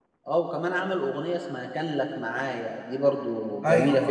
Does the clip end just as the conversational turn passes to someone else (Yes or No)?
Yes